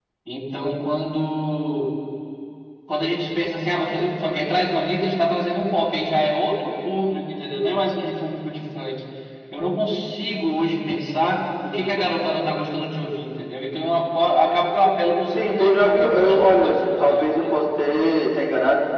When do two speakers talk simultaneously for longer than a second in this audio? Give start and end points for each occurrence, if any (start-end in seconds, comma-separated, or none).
15.4-17.6